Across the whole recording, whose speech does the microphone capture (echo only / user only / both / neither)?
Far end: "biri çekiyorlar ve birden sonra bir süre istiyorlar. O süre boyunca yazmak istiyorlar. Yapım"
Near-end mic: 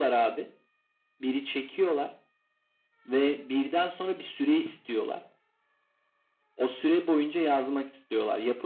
echo only